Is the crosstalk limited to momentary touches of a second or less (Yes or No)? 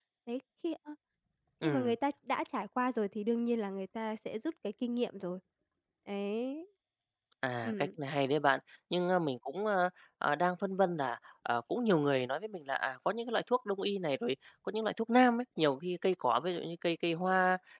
Yes